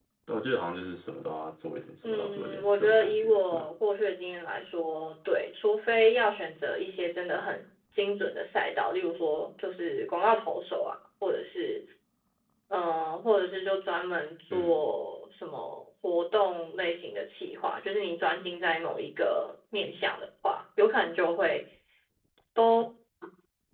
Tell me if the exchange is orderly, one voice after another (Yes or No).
No